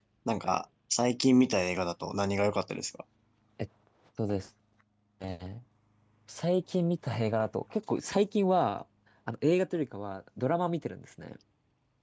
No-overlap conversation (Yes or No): Yes